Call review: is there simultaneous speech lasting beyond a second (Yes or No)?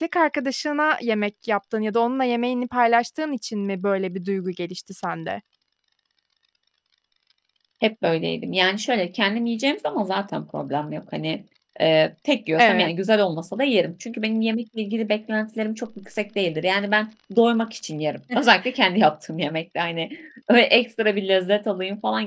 No